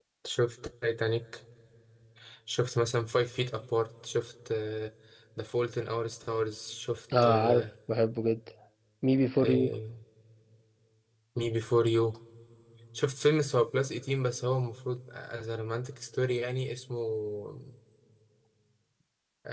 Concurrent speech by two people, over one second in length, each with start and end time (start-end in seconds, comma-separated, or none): none